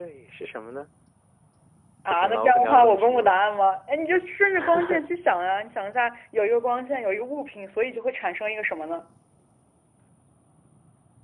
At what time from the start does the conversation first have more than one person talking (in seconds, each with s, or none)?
2.1 s